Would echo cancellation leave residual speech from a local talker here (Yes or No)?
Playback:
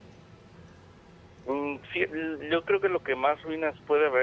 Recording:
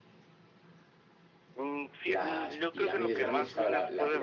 Yes